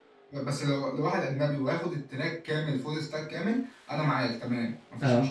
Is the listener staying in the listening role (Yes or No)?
Yes